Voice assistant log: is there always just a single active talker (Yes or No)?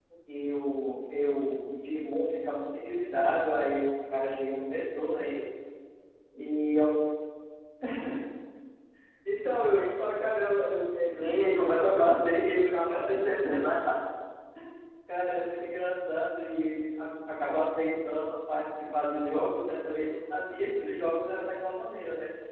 No